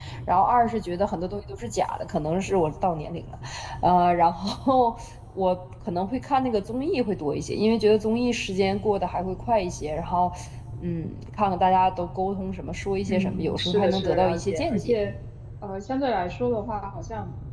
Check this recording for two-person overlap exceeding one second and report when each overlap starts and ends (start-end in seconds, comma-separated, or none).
13.1-15.0